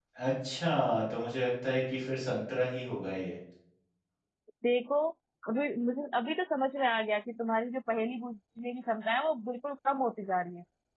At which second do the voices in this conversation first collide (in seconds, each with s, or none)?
none